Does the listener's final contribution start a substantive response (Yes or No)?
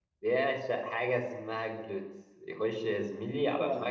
No